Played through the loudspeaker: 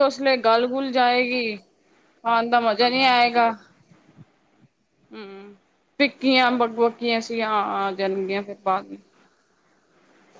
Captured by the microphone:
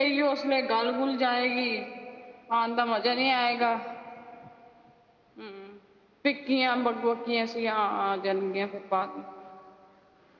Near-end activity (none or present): none